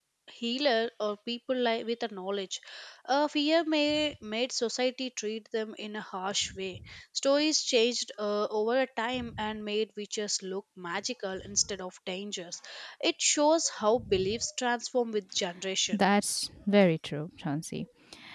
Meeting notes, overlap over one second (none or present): none